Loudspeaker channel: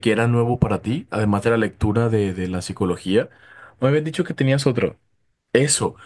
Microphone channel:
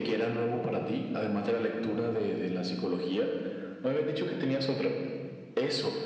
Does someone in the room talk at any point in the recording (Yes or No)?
No